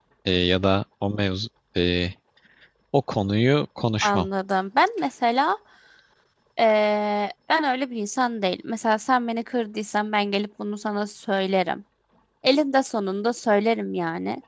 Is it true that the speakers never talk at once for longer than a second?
Yes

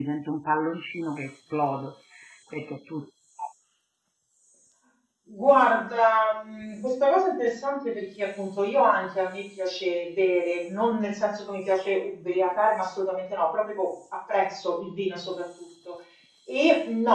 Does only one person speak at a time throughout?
Yes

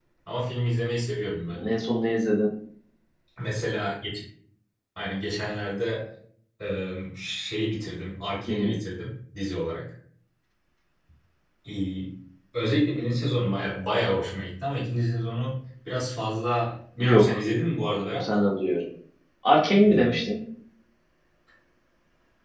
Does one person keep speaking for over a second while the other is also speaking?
No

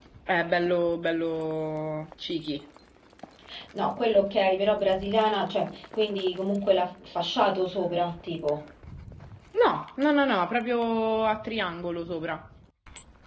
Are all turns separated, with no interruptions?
Yes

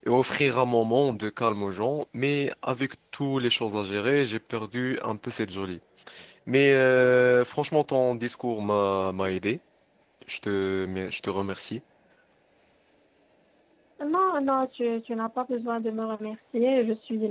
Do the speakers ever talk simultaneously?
No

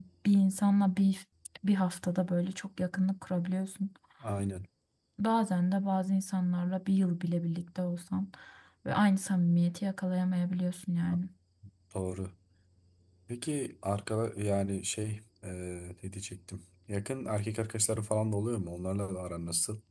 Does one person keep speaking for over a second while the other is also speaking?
No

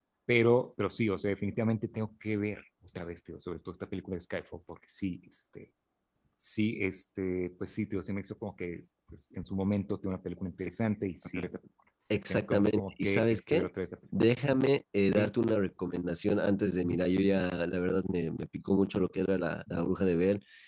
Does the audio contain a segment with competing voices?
Yes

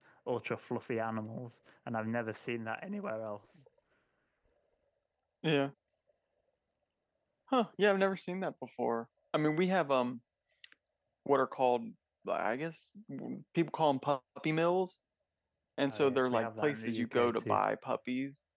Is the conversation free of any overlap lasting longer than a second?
No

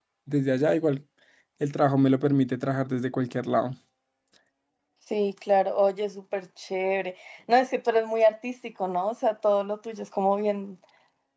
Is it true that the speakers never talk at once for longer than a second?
Yes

